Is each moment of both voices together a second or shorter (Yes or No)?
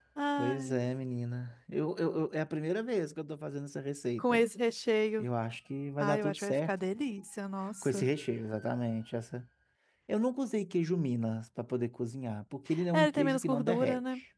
No